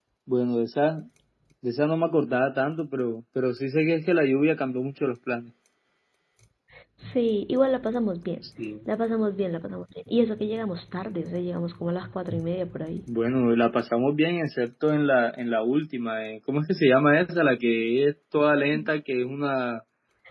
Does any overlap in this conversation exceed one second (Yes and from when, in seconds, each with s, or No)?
No